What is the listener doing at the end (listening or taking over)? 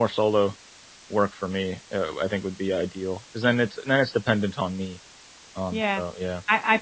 taking over